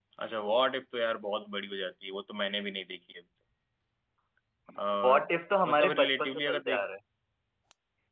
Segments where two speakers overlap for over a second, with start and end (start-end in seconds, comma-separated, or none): 5.7-6.9